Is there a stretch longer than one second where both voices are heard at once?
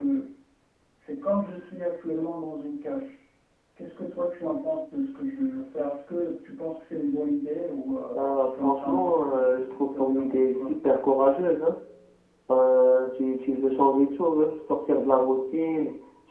Yes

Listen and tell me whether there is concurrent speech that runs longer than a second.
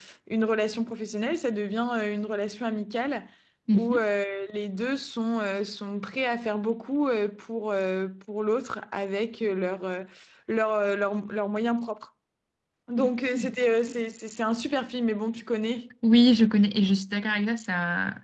No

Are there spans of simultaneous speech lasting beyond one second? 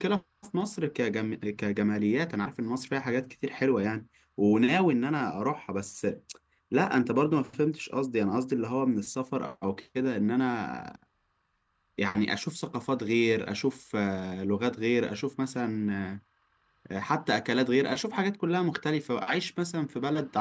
No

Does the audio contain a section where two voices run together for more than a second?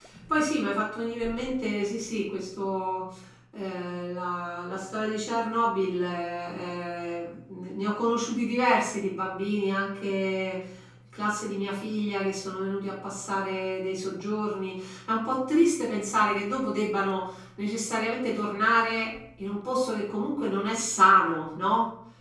No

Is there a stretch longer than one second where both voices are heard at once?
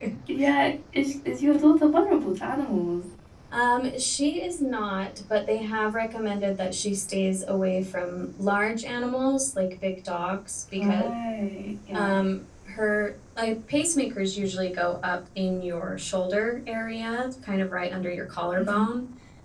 No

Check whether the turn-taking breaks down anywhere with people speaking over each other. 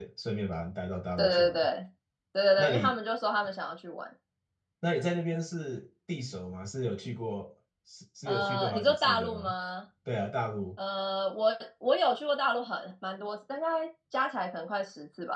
Yes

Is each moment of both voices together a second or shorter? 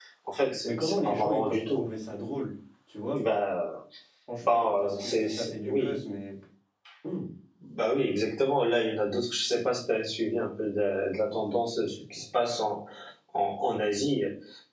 No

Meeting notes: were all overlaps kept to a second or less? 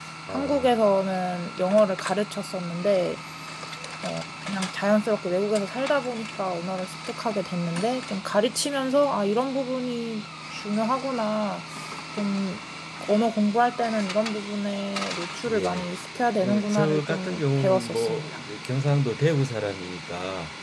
No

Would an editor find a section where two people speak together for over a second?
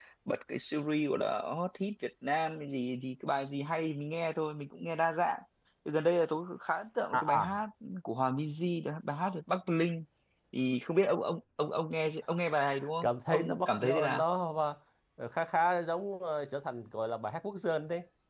Yes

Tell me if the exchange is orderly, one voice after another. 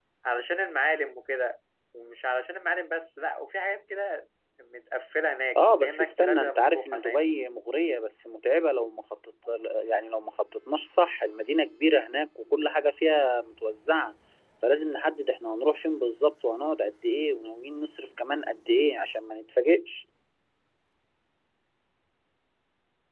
No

